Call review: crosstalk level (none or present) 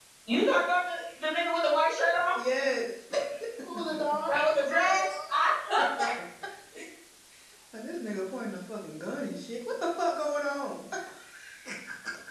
none